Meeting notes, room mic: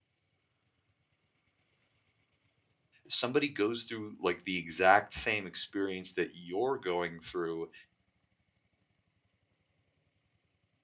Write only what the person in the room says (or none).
somebody goes through like the exact same experience that you're going through,